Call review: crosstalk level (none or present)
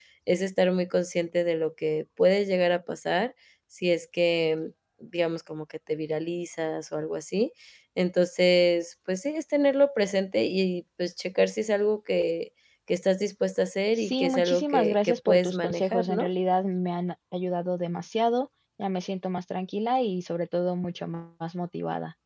present